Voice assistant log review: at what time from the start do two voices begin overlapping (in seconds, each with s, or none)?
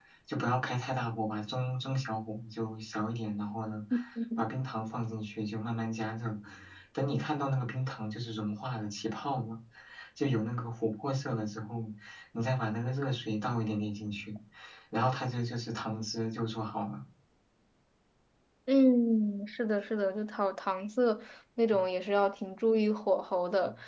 none